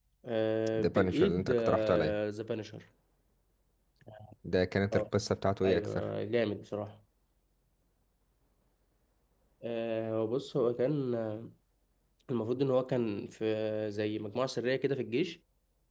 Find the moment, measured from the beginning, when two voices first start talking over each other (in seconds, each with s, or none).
0.7 s